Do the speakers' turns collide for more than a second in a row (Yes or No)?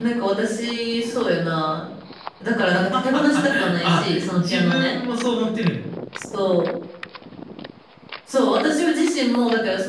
Yes